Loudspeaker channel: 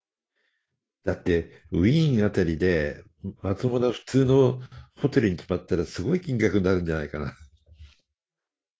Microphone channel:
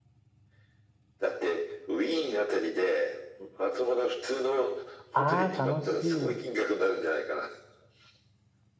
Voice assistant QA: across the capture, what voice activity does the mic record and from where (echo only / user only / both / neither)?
both